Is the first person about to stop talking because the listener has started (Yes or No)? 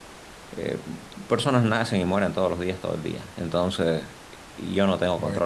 No